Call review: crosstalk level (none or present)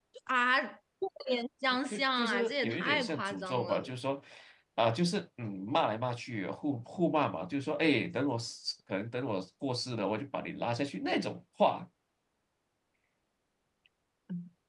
present